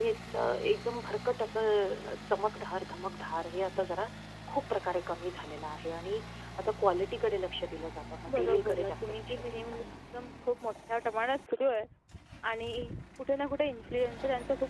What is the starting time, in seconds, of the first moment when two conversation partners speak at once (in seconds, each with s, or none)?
8.3 s